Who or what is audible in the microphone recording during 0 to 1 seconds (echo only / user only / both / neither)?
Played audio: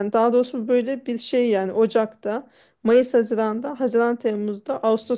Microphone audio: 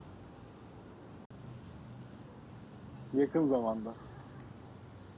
neither